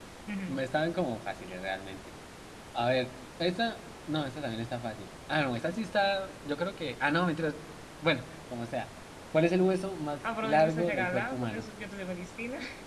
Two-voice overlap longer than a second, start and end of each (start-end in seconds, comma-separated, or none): 10.4-11.6